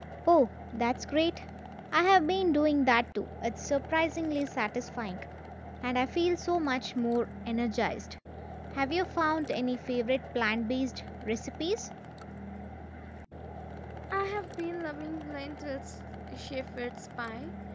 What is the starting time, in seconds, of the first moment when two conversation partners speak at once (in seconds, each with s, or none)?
none